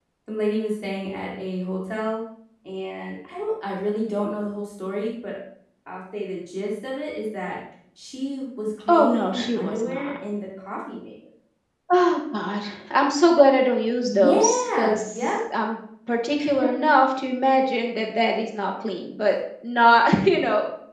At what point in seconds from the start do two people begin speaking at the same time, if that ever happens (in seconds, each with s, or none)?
8.9 s